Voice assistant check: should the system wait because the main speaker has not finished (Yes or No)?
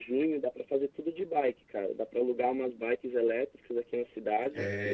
No